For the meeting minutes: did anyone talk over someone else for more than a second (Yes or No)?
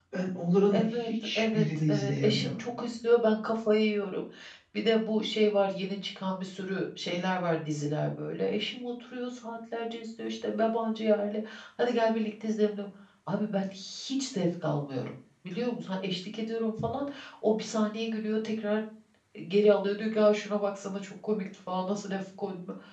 Yes